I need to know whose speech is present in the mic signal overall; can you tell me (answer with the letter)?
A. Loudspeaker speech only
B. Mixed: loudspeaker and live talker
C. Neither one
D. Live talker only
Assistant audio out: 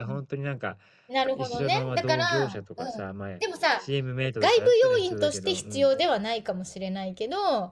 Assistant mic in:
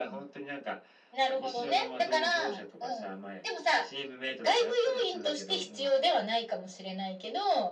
A